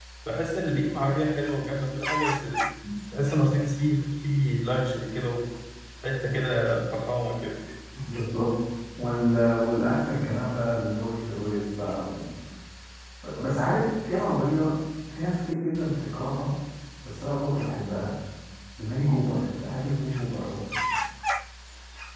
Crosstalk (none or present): none